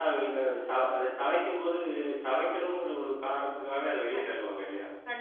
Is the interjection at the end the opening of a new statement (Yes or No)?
Yes